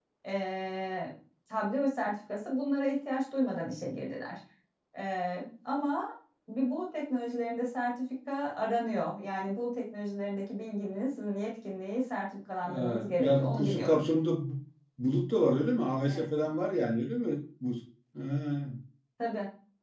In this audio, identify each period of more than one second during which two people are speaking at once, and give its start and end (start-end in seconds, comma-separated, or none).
12.7-14.0